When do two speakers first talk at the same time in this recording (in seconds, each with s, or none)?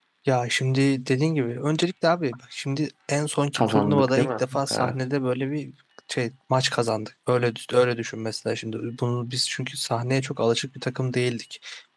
3.5 s